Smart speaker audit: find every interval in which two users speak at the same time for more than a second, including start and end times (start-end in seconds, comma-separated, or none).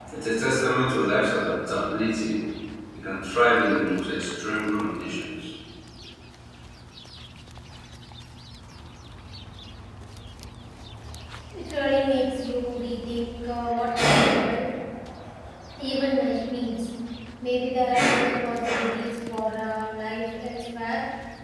none